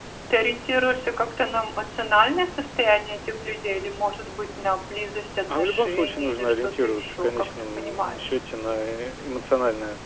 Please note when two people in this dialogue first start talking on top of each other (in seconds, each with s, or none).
5.5 s